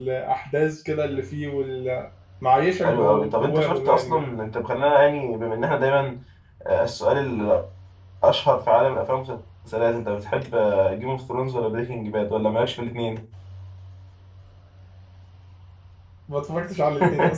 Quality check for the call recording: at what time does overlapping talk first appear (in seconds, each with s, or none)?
2.8 s